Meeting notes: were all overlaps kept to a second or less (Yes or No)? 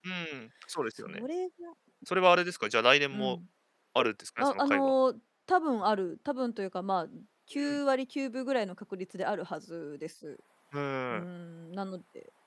Yes